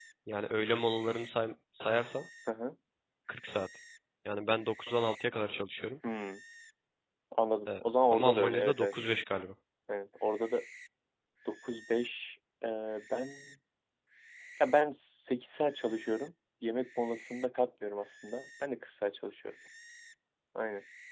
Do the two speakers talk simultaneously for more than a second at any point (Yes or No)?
Yes